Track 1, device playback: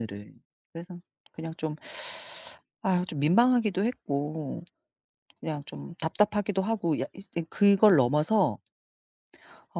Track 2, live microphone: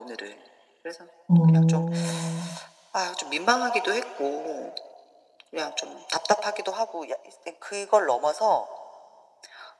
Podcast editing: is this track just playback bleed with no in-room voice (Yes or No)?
No